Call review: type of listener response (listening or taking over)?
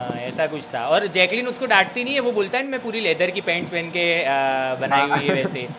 listening